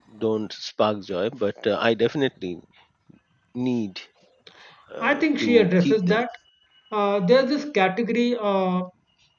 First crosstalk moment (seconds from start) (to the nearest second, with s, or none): 5 s